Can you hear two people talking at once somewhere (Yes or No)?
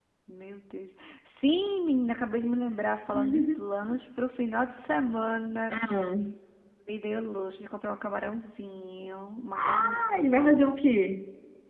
Yes